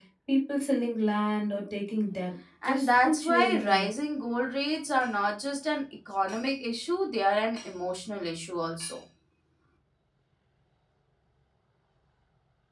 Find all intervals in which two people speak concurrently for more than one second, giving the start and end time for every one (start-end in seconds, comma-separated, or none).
2.6-3.9